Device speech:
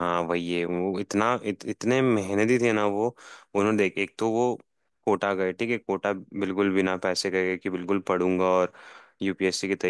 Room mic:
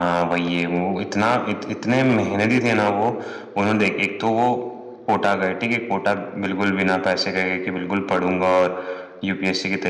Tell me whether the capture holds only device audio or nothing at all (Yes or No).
Yes